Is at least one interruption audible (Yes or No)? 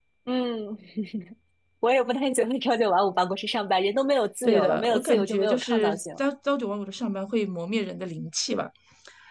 Yes